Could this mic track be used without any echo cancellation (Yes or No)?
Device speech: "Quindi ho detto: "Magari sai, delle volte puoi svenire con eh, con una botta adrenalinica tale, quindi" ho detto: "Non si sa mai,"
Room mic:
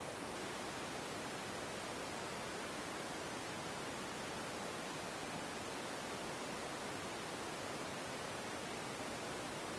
Yes